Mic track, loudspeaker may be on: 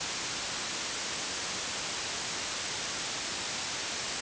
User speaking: No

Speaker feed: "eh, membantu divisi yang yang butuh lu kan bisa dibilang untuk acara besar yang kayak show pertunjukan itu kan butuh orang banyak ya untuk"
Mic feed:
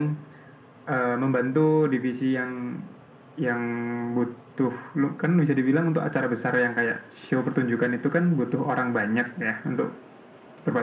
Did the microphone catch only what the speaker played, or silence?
Yes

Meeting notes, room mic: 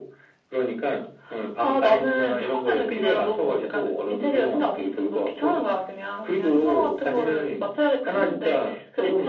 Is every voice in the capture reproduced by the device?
Yes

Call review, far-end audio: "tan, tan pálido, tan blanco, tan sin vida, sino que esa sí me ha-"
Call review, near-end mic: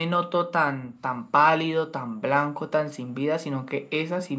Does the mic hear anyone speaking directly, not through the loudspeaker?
No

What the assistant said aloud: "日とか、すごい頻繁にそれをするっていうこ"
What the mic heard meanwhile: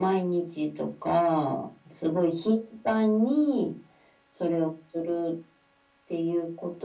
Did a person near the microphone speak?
No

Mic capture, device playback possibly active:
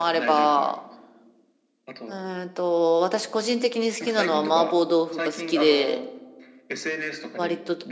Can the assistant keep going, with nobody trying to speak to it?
No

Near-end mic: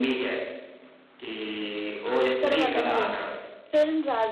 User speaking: Yes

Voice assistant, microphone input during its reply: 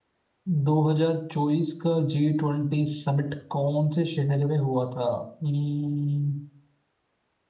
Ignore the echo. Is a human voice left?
Yes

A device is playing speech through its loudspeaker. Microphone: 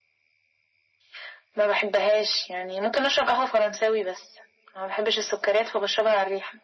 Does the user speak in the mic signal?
No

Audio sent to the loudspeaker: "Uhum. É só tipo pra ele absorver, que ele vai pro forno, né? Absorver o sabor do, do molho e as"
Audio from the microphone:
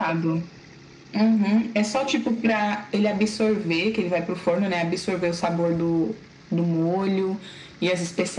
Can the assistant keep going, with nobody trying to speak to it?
Yes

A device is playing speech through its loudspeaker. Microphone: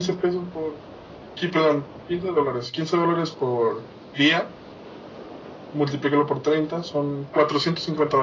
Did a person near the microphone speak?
No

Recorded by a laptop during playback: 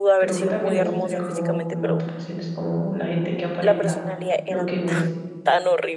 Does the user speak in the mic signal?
Yes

